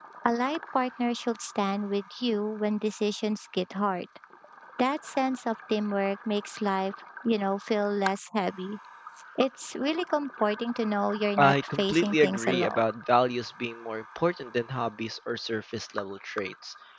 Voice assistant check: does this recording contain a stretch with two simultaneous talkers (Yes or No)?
Yes